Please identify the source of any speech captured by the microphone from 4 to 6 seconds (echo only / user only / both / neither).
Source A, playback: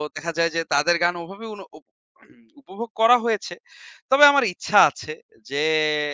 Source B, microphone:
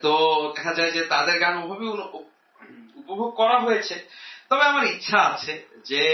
echo only